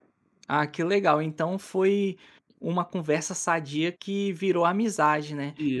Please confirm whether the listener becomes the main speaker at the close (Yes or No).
No